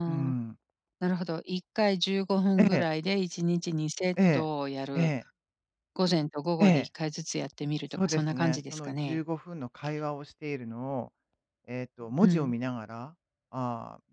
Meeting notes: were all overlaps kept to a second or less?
No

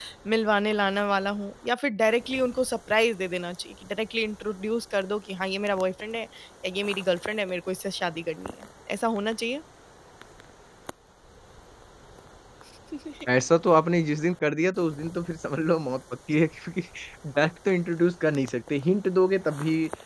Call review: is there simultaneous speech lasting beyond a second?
No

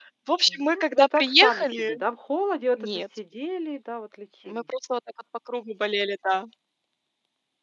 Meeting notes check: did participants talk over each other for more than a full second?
Yes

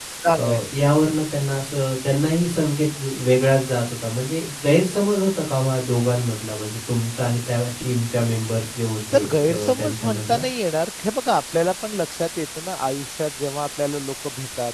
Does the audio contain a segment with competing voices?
Yes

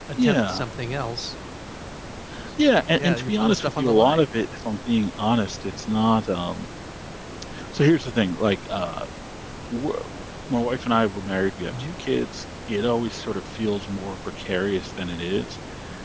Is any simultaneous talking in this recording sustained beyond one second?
Yes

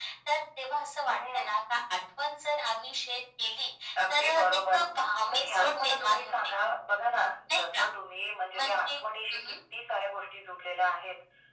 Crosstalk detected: Yes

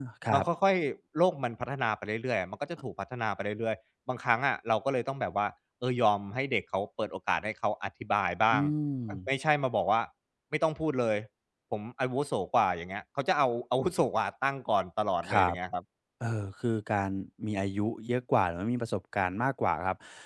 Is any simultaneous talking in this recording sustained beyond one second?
No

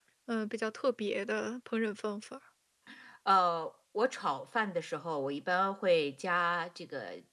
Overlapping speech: No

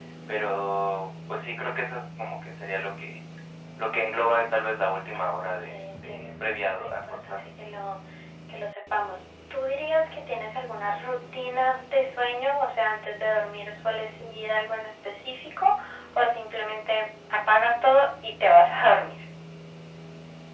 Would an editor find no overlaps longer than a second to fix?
No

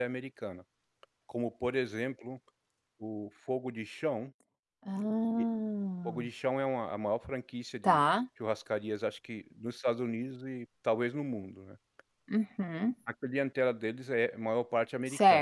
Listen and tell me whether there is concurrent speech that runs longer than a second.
No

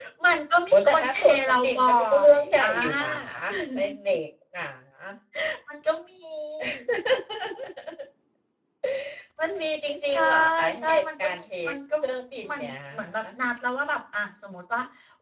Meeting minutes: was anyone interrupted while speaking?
Yes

